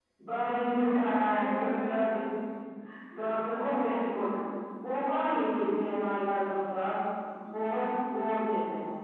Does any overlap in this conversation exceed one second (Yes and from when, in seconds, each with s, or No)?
Yes, from 0.7 s